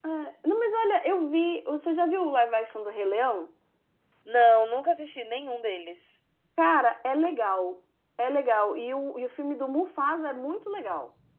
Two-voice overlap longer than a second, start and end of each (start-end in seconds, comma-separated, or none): none